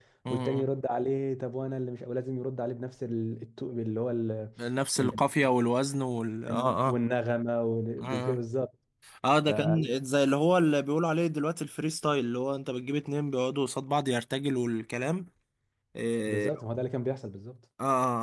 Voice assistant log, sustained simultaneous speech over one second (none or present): none